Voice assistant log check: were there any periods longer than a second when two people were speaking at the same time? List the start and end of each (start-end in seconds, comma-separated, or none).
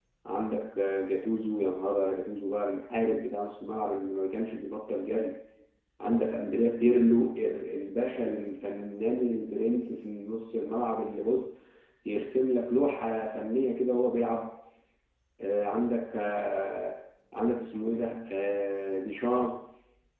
none